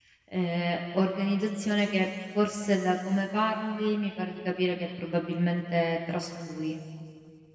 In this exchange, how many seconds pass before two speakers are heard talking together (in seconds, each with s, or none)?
none